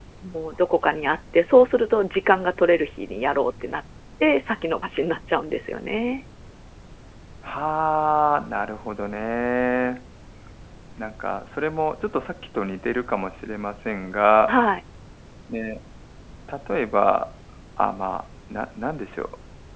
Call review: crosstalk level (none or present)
none